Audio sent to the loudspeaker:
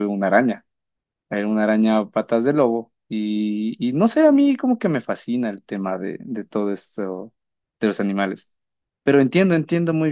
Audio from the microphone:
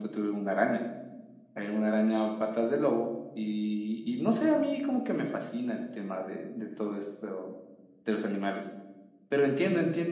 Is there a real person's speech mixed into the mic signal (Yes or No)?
No